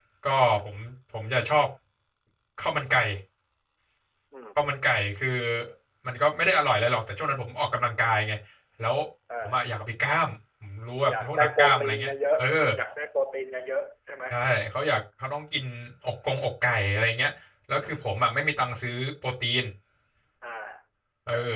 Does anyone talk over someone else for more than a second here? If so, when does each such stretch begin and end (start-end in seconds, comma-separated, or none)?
11.1-12.4